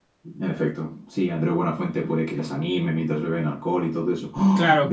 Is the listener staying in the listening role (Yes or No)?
No